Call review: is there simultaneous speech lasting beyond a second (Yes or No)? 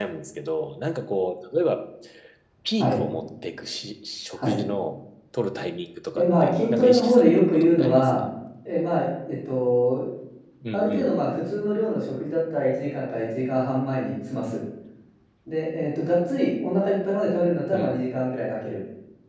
Yes